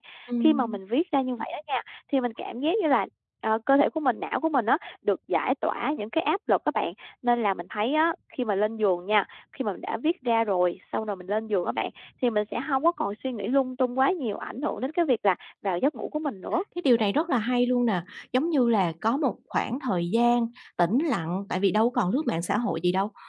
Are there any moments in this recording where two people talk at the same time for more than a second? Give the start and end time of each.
none

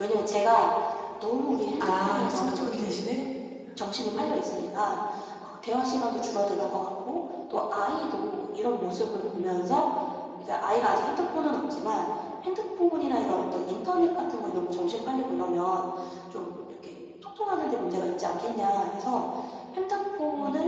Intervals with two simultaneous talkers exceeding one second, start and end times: 1.8-3.1

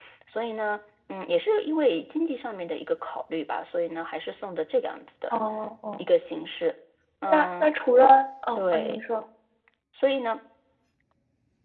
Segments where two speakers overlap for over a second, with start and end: none

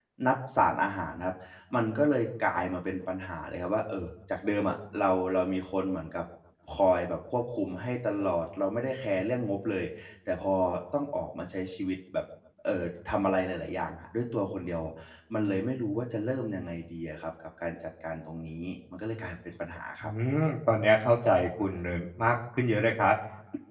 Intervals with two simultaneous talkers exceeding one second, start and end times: none

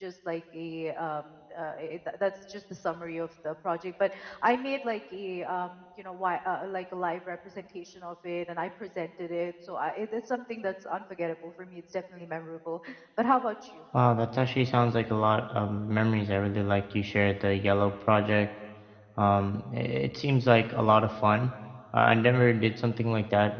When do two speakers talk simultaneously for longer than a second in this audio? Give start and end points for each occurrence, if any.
none

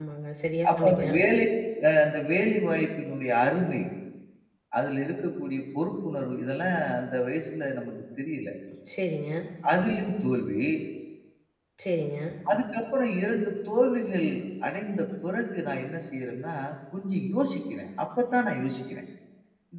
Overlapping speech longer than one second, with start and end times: none

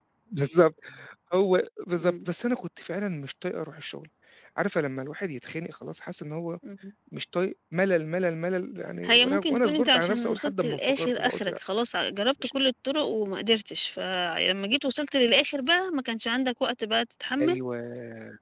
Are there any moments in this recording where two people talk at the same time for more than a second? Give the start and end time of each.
9.0-11.6

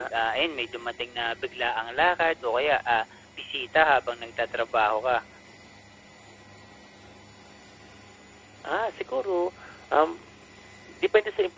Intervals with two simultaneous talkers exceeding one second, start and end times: none

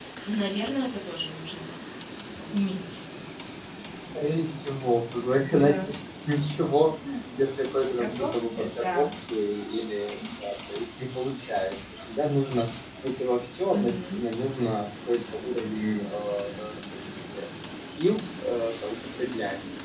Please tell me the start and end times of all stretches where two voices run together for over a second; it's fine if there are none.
7.8-9.1

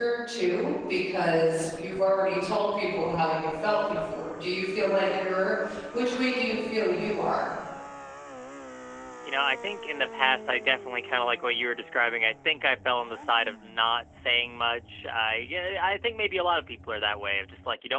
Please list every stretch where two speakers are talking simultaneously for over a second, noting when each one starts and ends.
none

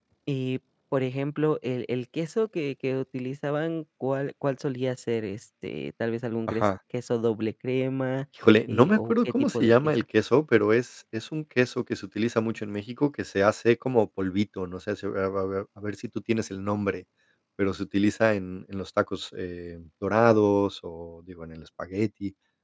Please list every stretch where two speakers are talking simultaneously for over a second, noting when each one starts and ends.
8.7-9.9

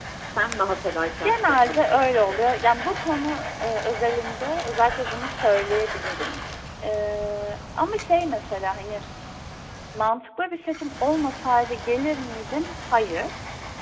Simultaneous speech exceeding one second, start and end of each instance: 1.2-2.6

